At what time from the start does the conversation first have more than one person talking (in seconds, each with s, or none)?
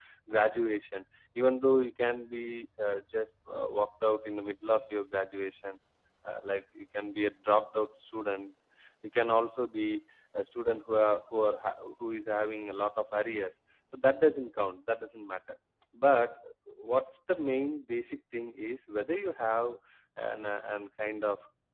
none